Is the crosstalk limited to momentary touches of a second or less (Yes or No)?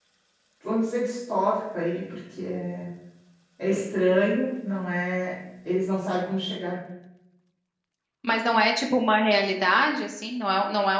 Yes